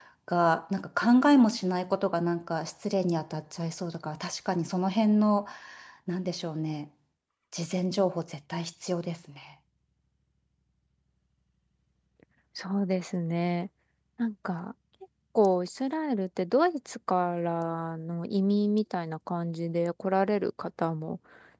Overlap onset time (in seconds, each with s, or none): none